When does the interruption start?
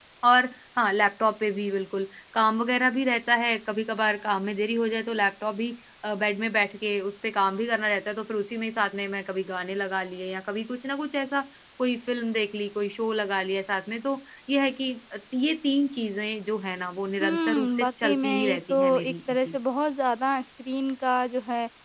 17.2 s

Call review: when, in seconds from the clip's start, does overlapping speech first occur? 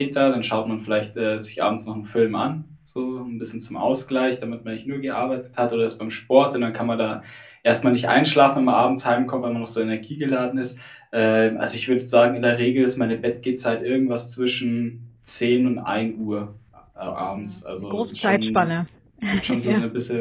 17.3 s

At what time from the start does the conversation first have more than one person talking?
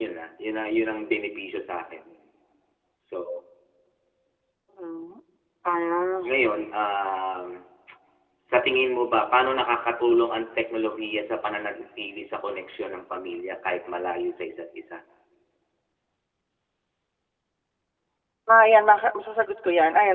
none

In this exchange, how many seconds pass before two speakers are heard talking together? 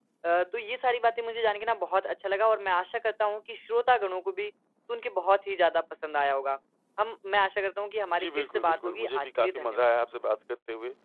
8.2 s

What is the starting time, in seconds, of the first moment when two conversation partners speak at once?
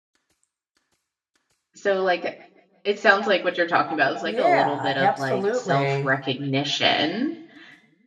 4.2 s

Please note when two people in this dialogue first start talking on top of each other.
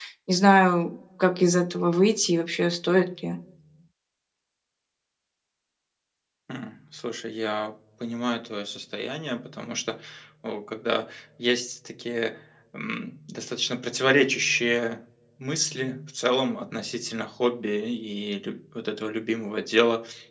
none

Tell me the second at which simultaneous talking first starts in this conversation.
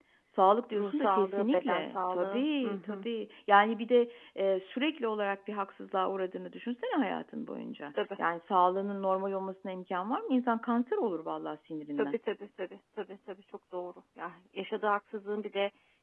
0.7 s

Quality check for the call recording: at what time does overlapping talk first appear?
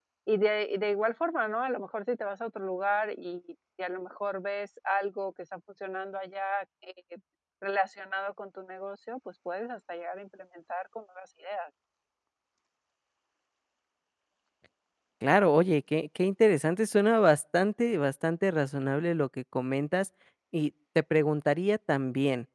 none

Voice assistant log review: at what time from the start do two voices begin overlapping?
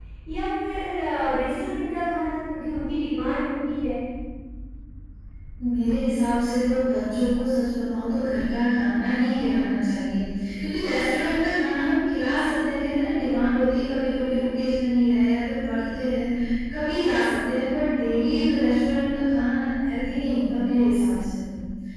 none

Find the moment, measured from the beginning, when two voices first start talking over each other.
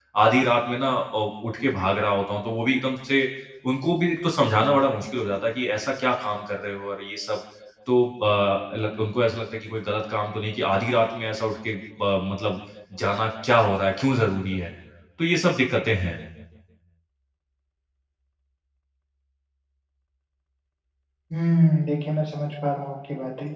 none

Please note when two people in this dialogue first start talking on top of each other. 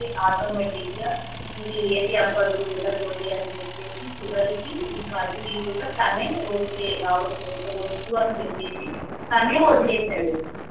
none

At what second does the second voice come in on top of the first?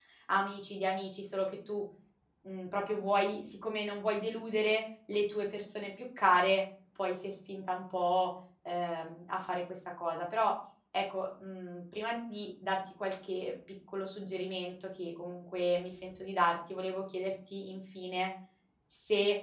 none

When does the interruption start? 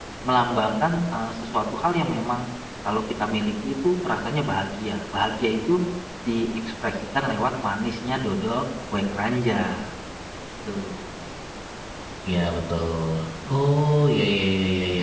none

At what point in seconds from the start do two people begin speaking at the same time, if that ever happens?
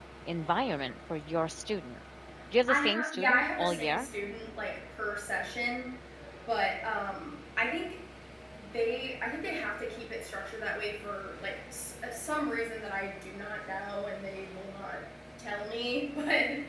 2.7 s

